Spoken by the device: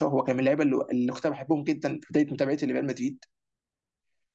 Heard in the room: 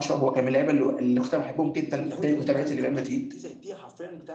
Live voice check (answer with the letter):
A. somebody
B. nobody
A